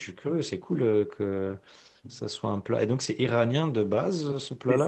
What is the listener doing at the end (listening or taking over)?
taking over